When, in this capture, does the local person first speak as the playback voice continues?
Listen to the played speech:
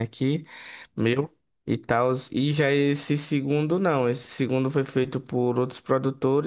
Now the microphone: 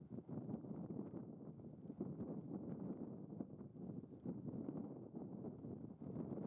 none

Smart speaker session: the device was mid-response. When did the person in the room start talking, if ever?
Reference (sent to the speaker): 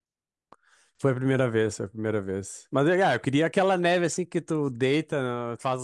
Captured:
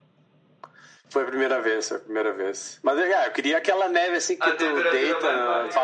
4.4 s

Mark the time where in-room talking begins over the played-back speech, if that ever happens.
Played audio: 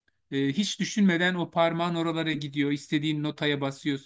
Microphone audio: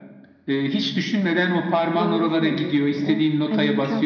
2.0 s

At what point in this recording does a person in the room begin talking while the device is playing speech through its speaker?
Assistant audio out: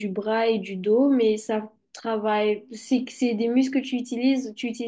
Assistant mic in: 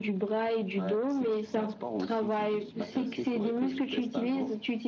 0.8 s

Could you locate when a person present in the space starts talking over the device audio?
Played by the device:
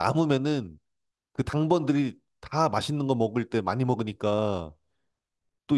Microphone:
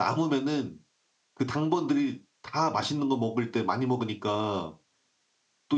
none

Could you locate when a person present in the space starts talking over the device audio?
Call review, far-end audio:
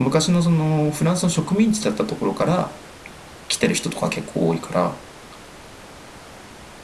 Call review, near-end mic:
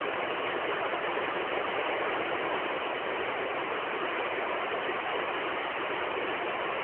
none

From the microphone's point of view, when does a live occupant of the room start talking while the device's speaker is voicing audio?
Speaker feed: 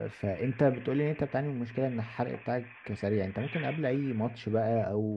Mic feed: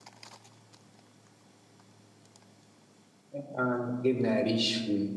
3.3 s

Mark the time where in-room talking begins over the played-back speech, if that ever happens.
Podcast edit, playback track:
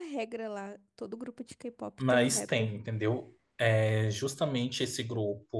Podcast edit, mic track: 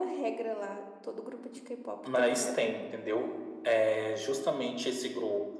none

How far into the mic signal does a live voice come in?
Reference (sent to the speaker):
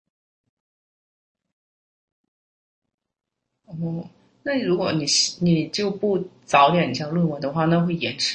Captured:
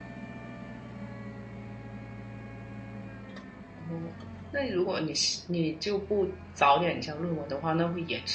none

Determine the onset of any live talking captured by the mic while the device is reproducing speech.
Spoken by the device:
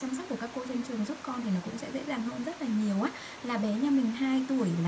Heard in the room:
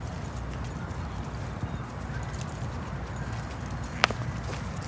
none

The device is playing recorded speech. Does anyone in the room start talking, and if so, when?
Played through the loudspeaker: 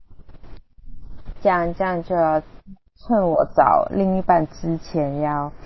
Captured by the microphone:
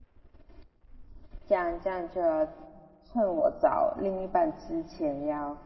none

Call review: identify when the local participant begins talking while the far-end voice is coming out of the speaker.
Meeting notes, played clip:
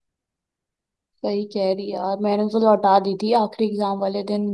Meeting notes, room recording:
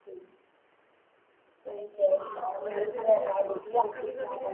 2.1 s

